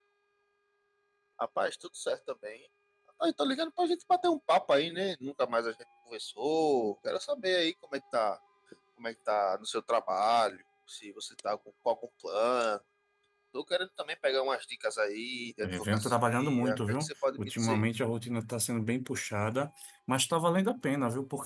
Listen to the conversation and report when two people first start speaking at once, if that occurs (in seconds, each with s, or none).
15.6 s